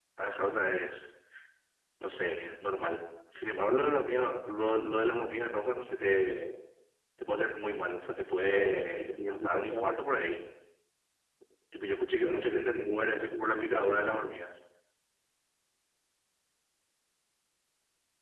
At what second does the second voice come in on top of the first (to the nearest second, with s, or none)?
8 s